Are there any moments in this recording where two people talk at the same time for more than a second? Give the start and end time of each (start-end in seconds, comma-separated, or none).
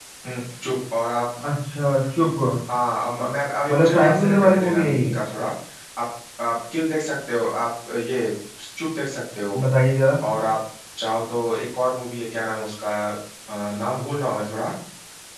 3.7-5.1